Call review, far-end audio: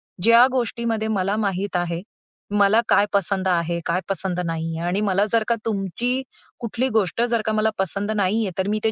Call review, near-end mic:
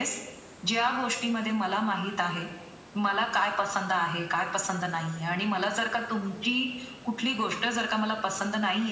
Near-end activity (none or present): none